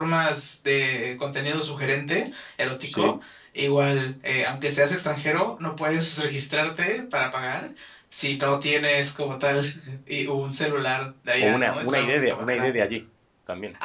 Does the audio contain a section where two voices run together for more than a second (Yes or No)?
Yes